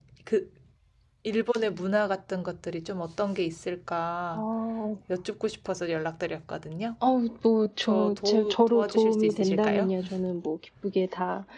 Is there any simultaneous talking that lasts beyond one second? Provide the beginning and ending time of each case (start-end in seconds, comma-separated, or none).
7.8-9.9